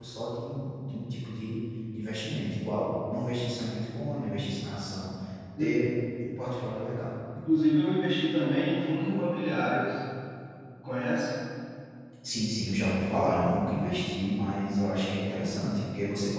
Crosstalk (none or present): none